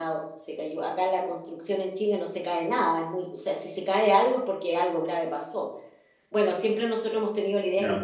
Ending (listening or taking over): listening